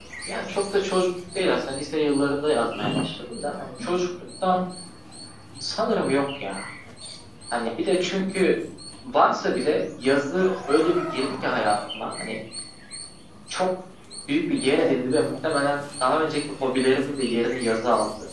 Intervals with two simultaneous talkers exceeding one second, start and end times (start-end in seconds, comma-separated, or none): none